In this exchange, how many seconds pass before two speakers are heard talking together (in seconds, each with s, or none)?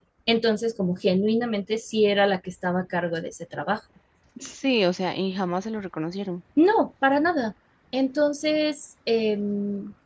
none